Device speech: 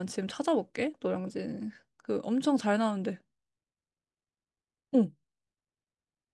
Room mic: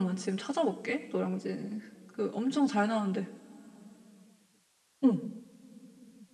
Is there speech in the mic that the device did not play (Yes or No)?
No